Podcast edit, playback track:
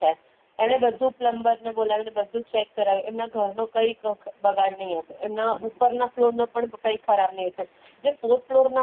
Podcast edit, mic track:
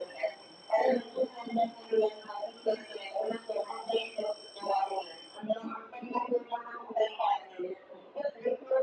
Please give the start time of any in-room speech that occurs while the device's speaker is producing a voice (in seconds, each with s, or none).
none